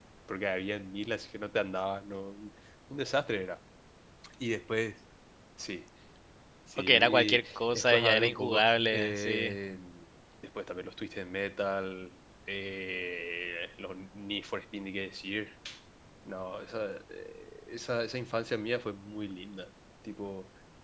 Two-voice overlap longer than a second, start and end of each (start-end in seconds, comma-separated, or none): 6.8-9.5